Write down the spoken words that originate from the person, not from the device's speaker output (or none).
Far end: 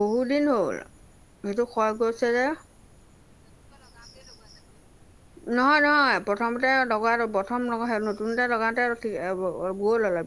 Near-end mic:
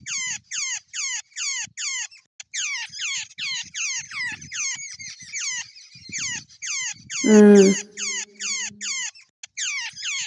উম,